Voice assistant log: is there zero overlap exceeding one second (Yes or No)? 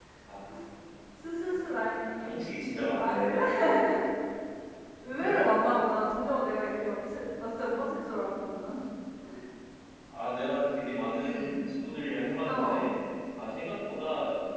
Yes